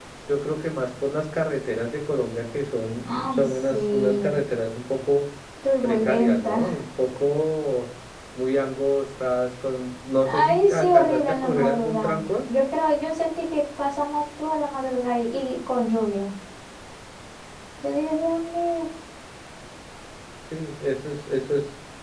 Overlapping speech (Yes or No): Yes